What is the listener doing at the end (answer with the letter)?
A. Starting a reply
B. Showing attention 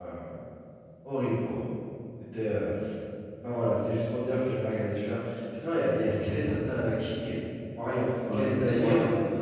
A